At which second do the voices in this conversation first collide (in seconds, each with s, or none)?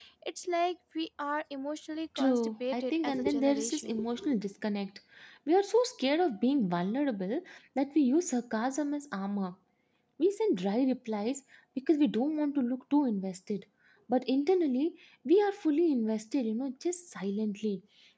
2.2 s